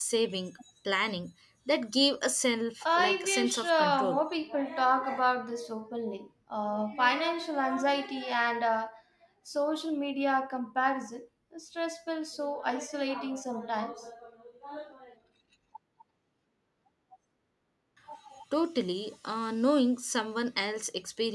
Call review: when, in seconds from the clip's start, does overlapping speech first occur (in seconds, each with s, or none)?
2.8 s